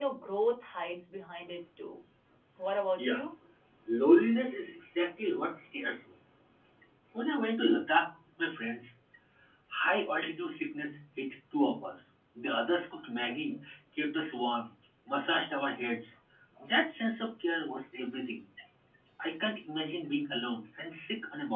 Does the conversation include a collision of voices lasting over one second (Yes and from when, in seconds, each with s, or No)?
No